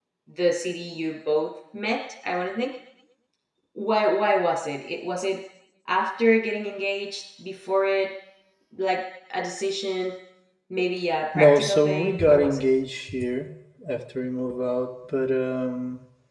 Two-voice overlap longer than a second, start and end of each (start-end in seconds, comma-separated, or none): 11.3-12.7